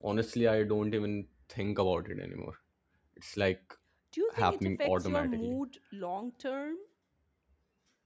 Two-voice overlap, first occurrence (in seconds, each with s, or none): 4.3 s